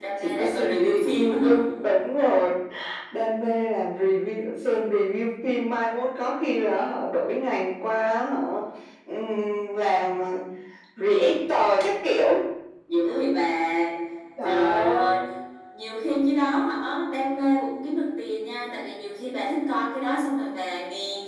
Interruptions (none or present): present